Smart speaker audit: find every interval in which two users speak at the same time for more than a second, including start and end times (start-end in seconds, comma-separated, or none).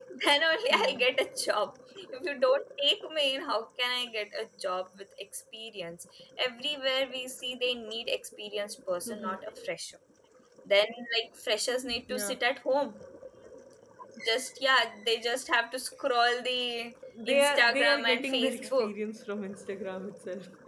17.3-18.9